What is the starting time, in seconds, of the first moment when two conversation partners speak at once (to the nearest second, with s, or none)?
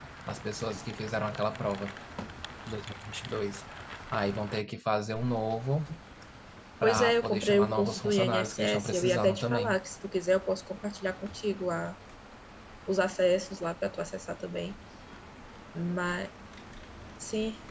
7 s